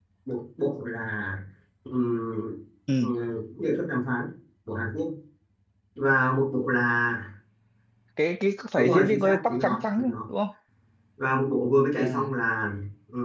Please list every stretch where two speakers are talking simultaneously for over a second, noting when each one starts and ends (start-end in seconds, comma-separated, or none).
8.8-10.2